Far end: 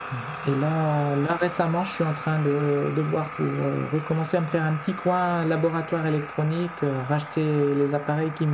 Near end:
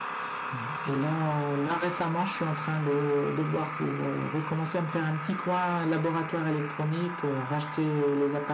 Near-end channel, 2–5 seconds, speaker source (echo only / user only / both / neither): echo only